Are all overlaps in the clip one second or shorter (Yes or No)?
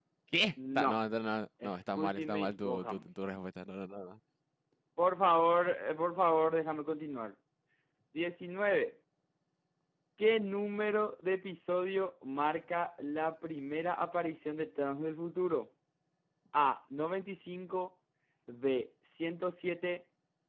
No